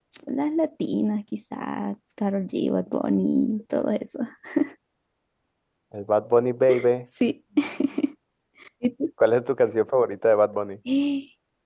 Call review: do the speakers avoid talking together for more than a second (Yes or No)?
Yes